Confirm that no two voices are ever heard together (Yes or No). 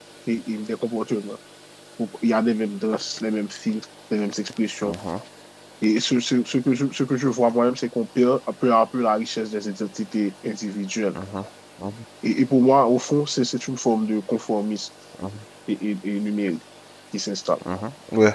Yes